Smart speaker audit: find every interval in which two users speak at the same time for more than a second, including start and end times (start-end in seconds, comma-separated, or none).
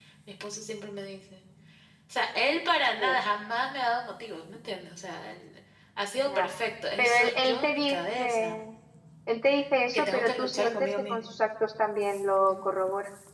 7.0-8.6, 9.9-11.3